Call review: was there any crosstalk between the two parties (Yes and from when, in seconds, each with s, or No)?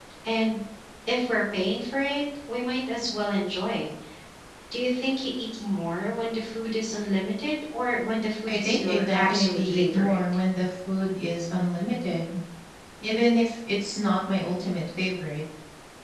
Yes, from 8.5 s